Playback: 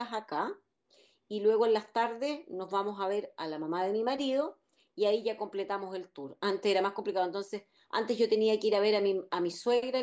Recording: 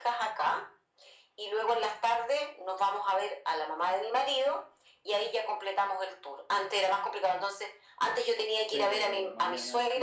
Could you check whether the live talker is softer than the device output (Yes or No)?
Yes